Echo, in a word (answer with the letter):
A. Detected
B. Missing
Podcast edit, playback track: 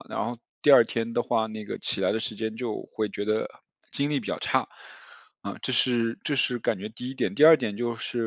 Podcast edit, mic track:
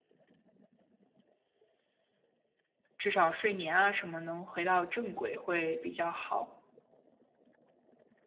B